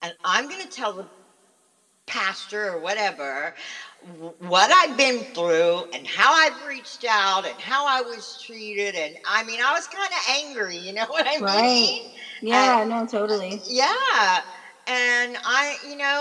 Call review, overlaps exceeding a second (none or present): none